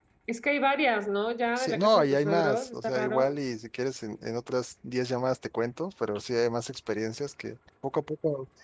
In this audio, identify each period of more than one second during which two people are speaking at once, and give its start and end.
1.6-3.4

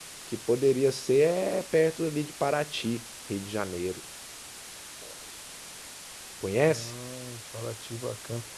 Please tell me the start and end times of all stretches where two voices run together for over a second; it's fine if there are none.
none

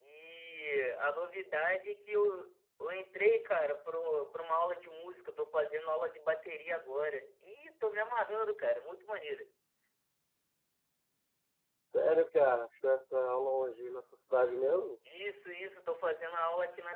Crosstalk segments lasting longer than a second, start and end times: none

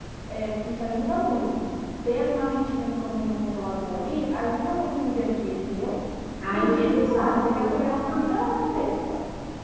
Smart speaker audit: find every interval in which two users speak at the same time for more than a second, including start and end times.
6.5-8.3

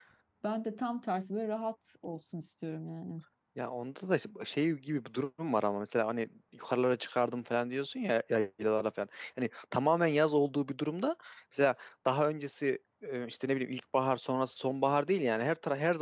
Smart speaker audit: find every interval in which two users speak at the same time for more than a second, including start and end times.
none

